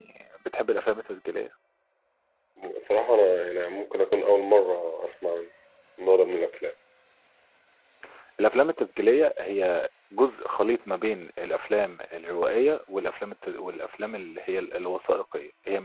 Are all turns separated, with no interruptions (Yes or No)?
Yes